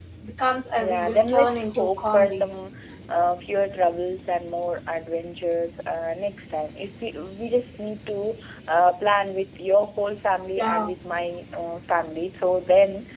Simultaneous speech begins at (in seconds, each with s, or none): 0.8 s